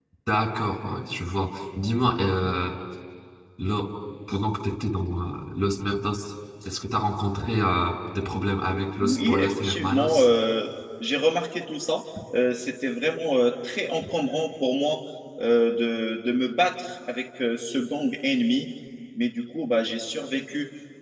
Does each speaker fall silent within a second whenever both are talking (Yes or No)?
No